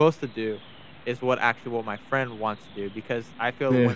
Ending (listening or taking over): listening